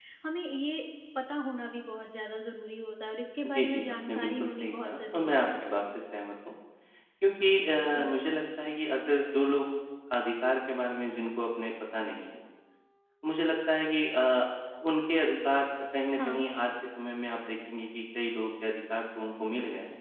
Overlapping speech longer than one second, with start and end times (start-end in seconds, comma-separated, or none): 3.5-5.5